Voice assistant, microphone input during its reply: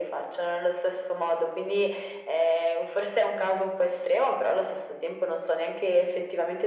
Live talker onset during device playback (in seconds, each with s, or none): none